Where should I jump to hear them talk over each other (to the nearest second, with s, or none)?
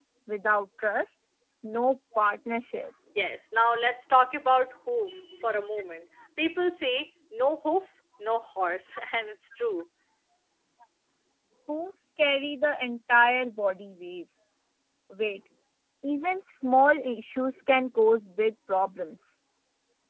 none